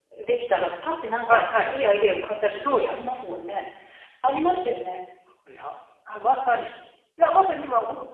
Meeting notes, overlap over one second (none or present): none